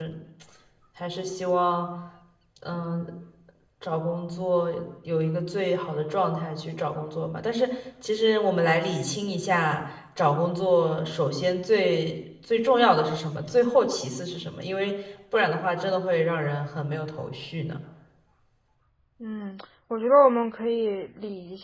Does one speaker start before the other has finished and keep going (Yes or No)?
No